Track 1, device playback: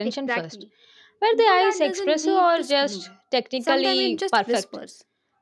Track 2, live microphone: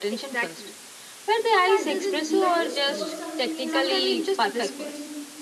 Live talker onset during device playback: 1.7 s

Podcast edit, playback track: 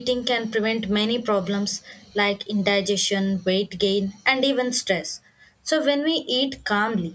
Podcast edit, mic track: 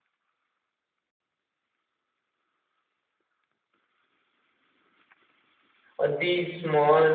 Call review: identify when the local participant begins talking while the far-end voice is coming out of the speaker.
6.0 s

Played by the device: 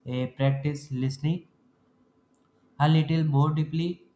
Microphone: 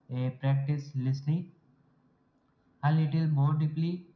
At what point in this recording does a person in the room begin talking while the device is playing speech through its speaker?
none

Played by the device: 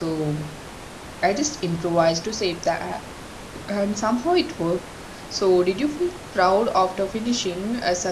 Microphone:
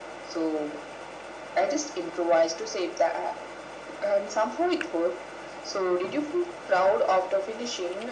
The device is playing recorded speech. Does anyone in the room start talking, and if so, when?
none

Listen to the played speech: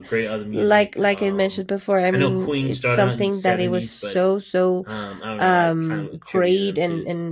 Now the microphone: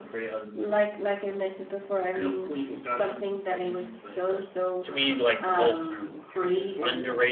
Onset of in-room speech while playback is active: 4.3 s

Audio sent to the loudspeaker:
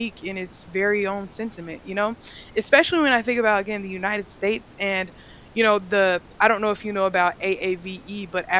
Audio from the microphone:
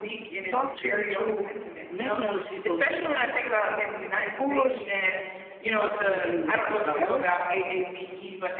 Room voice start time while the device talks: 0.5 s

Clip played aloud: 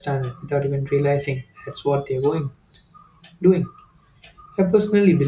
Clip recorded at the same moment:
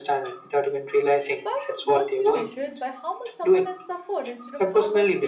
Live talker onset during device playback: 1.3 s

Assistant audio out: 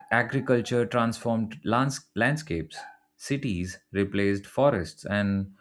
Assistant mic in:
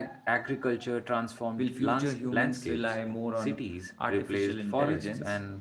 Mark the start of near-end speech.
1.6 s

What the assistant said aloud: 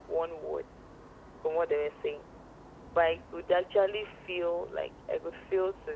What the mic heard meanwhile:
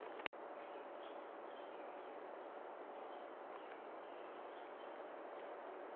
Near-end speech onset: none

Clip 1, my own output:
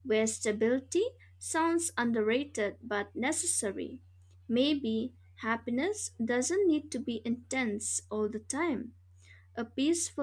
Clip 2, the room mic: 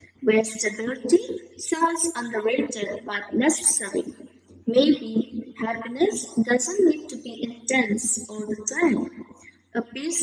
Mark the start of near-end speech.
none

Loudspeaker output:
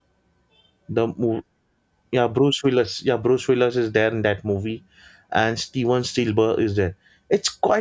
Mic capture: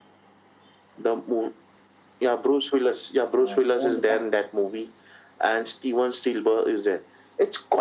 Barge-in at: 3.3 s

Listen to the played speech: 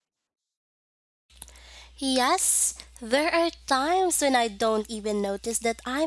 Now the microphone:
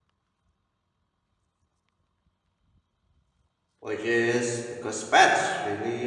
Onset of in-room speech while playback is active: 3.8 s

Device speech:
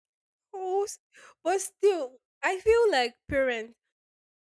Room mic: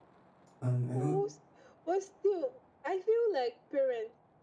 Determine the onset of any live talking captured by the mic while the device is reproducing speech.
0.6 s

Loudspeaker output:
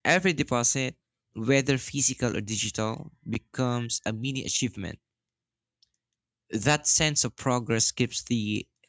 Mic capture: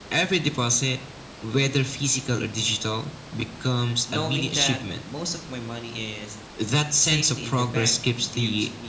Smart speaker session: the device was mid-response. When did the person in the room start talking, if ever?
4.1 s

